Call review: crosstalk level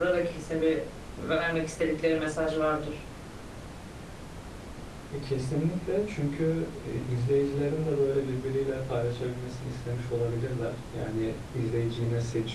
none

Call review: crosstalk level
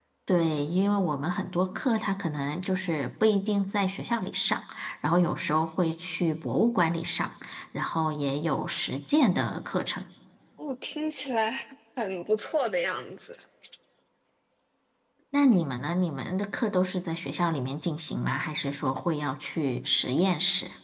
none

